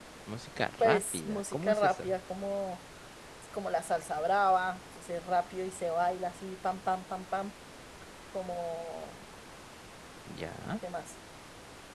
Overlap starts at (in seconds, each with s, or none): 0.8 s